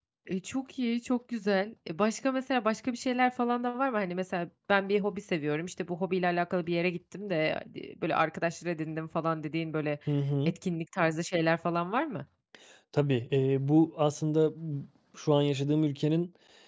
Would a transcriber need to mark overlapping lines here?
No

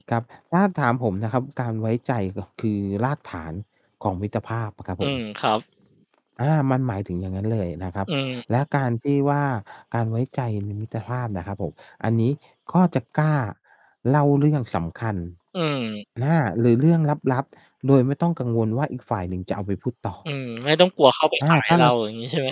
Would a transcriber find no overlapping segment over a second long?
Yes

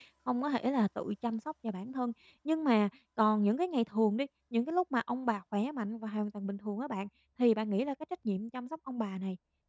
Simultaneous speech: No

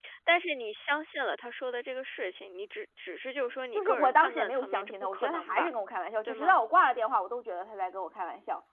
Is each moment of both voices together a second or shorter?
No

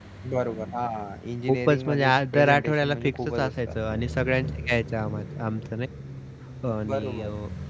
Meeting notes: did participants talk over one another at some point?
Yes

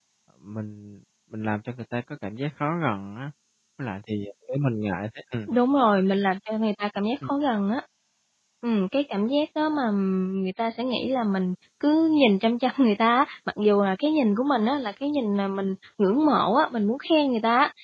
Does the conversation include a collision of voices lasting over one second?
No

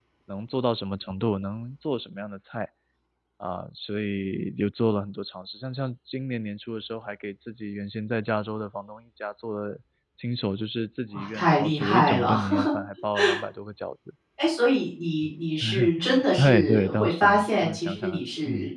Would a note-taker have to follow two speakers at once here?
Yes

